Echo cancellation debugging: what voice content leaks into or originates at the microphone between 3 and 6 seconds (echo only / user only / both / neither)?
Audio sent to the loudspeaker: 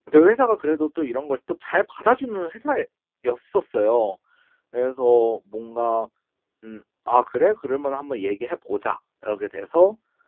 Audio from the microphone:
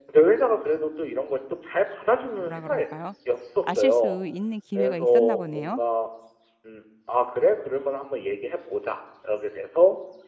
both